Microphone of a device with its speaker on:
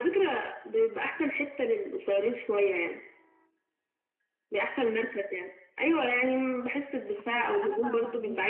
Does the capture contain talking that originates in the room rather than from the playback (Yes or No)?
Yes